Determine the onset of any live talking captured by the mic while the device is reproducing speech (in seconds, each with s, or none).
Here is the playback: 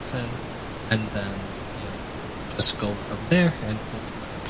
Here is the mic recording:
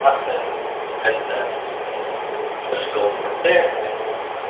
none